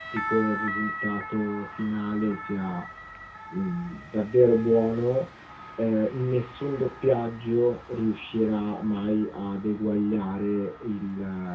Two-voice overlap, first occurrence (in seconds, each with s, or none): none